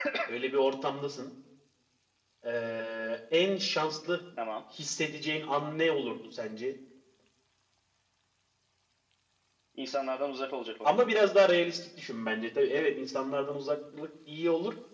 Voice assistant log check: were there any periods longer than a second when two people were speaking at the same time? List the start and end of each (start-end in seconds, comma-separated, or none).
none